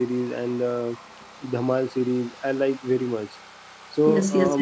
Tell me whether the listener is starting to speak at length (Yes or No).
Yes